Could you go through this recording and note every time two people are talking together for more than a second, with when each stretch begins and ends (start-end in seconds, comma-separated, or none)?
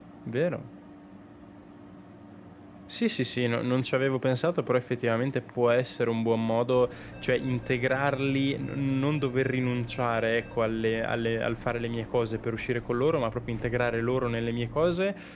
none